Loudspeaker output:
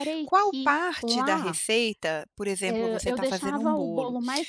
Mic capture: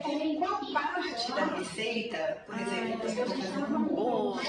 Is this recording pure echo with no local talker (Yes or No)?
No